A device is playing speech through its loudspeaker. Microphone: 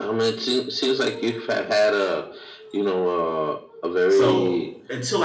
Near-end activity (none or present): present